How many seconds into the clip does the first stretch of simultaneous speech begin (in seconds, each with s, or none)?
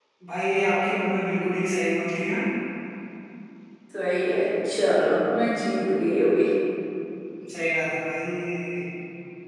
none